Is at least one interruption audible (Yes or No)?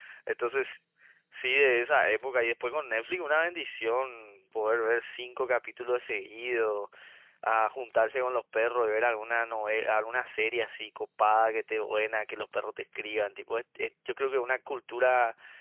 No